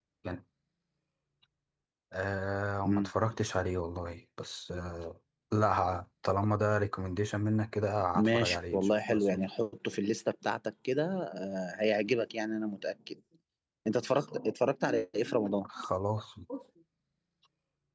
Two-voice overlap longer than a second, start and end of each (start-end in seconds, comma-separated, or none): 8.2-9.3